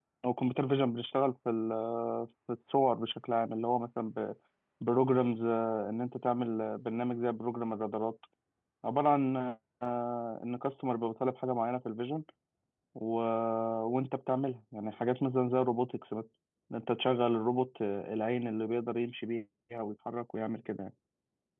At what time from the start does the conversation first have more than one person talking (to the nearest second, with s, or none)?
none